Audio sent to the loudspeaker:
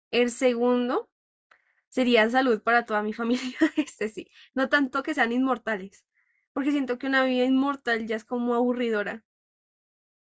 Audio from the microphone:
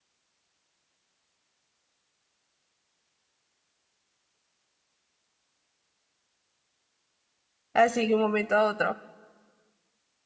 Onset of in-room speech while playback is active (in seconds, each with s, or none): 7.7 s